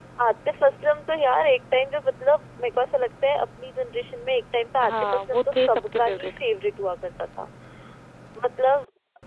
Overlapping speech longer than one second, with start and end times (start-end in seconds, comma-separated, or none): 4.9-6.3